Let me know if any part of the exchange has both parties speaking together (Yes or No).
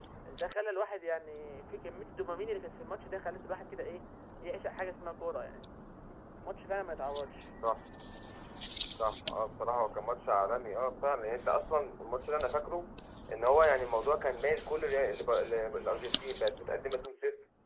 No